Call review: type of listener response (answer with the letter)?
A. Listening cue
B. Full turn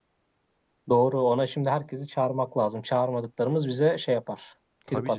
B